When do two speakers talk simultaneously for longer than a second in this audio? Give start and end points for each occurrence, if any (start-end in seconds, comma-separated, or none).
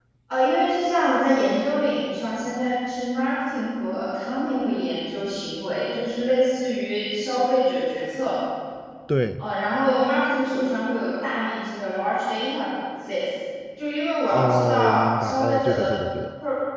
14.3-15.9